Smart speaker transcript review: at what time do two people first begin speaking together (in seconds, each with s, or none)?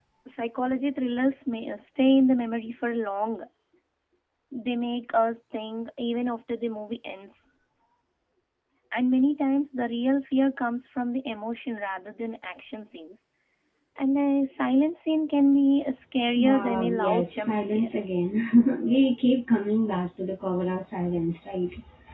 16.4 s